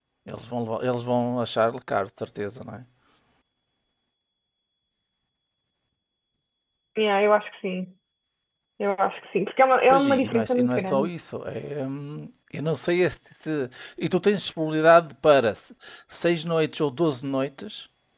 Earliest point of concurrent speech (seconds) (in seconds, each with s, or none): 9.9 s